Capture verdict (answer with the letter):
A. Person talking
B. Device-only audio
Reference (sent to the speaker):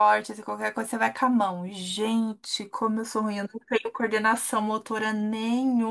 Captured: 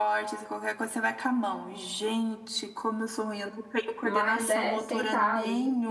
A